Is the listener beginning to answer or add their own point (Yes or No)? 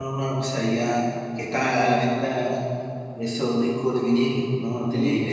Yes